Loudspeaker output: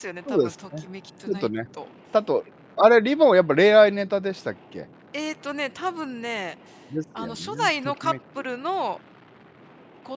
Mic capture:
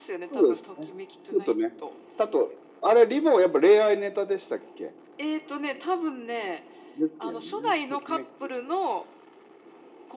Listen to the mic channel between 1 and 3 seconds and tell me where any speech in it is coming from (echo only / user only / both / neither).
echo only